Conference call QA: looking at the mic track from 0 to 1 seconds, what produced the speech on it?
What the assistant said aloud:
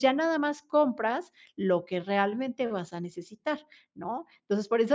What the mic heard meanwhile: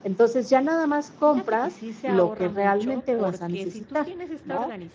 echo only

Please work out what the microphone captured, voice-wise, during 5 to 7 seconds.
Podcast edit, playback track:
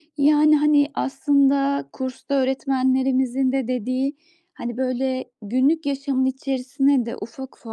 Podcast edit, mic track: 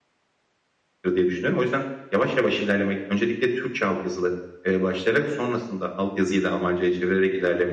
user only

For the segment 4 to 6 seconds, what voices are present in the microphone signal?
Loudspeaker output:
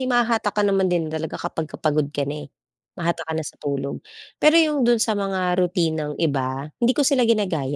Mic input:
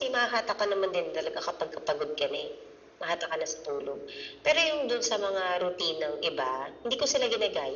echo only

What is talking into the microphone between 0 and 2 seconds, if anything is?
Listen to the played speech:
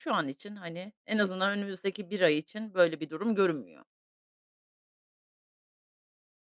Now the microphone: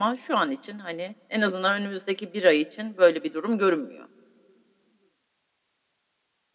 echo only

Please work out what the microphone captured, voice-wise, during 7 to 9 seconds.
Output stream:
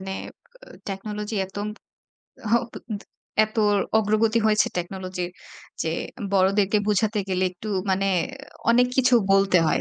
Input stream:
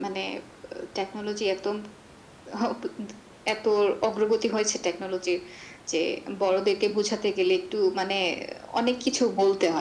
echo only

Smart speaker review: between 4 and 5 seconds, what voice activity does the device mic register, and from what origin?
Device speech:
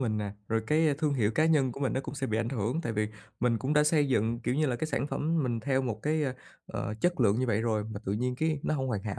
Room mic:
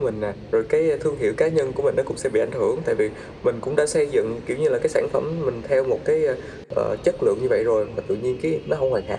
echo only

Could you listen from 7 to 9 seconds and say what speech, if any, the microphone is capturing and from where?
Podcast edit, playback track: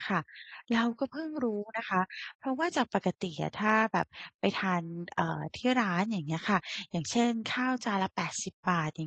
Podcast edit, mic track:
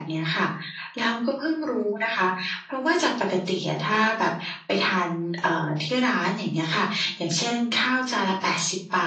echo only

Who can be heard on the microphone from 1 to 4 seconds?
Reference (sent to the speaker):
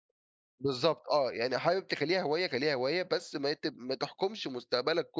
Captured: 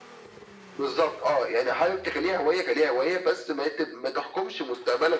echo only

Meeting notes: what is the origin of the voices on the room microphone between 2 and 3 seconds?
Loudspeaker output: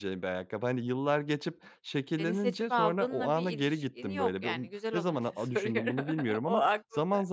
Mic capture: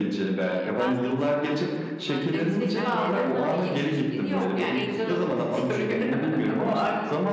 both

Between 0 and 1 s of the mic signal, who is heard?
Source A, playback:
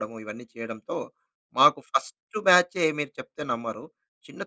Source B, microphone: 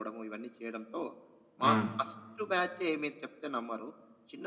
echo only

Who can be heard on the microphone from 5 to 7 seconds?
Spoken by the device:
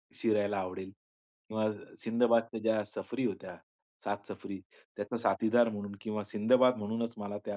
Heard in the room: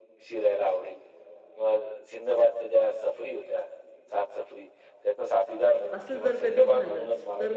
both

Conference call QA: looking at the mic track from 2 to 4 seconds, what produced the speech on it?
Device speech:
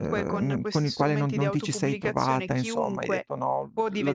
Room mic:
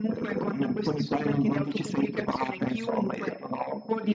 echo only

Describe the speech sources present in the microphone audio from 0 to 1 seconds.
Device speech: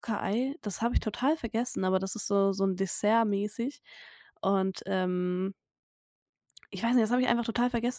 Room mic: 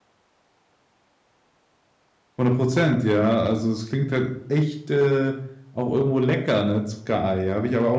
neither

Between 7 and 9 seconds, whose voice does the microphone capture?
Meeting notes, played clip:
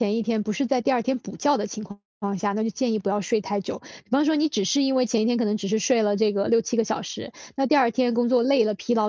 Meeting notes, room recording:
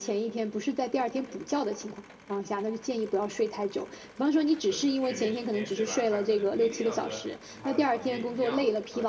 both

